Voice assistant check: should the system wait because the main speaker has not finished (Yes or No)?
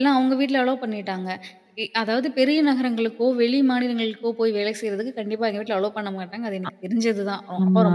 No